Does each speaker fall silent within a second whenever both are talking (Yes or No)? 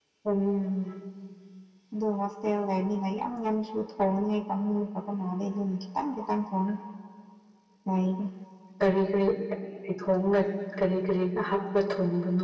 Yes